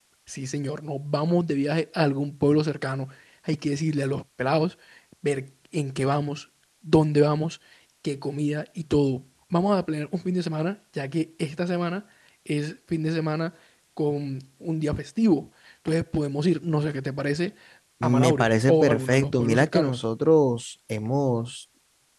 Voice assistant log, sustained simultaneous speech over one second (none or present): present